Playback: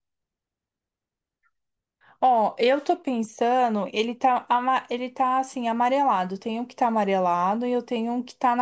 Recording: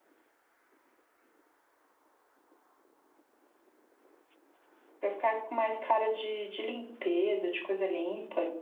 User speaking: Yes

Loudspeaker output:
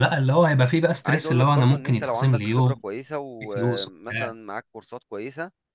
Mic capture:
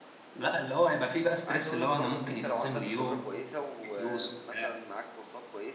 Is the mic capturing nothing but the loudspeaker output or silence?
Yes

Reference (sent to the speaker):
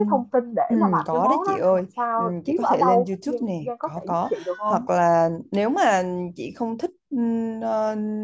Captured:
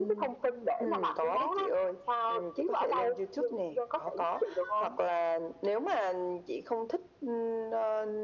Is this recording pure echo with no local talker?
Yes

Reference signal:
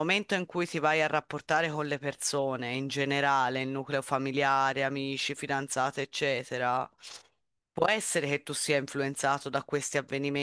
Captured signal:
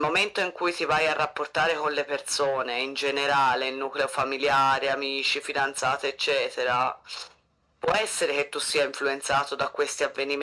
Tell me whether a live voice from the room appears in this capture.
No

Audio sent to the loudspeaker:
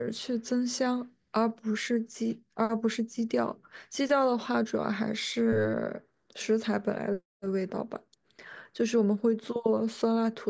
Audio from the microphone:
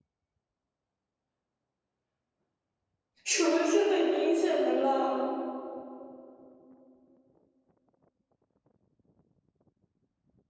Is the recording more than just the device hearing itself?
Yes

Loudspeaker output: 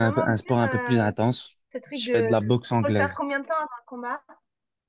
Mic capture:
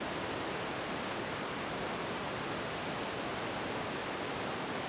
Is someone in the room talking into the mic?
No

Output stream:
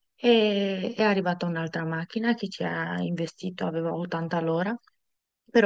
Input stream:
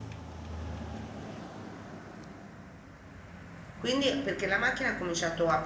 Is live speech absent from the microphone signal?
No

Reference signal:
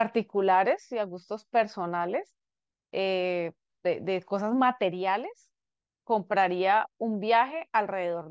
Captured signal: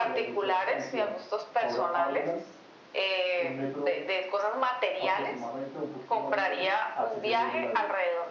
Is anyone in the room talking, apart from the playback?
Yes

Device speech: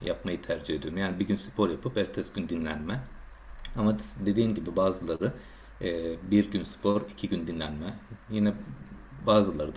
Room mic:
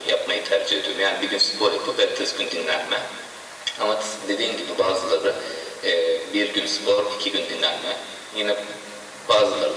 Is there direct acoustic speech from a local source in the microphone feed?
No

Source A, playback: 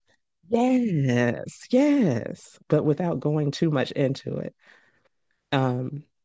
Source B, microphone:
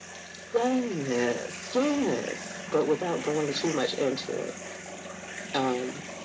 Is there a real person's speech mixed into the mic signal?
No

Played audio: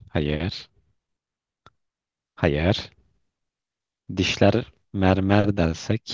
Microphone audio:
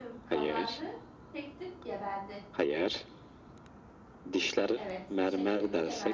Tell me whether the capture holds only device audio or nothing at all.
No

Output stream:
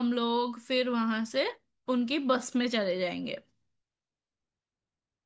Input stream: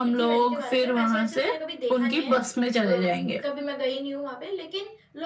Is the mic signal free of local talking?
No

